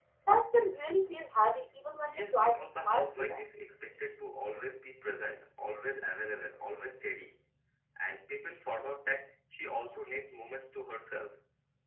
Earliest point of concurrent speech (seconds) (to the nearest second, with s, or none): 2 s